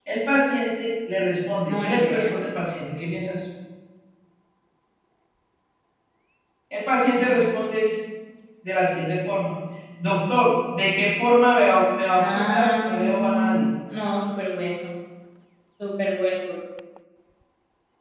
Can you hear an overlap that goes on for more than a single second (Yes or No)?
Yes